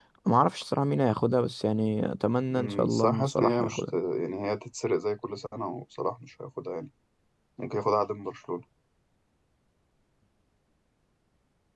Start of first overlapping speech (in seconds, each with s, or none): 2.5 s